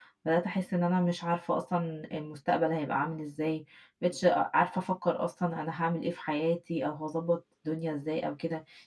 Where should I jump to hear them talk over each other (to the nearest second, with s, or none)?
none